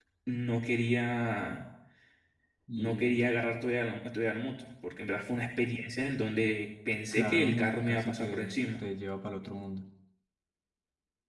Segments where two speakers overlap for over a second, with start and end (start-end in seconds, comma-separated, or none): 7.1-8.9